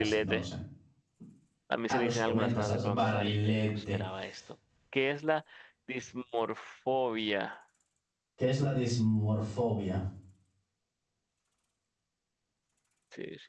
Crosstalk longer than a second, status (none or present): present